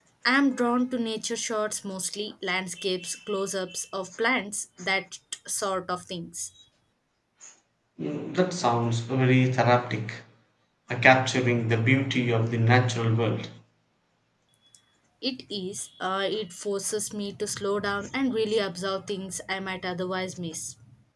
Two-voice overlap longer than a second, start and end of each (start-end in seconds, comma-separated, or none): none